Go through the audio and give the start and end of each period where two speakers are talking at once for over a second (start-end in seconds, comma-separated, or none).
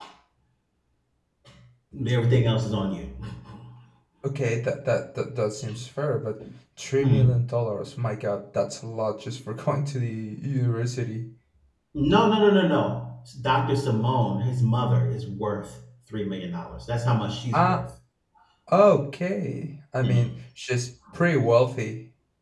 none